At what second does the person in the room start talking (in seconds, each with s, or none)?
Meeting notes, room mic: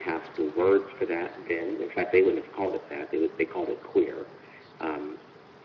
none